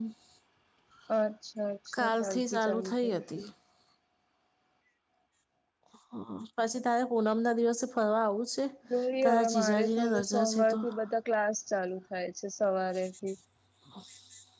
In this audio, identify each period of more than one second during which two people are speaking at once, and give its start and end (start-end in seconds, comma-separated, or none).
2.0-3.4, 9.2-10.8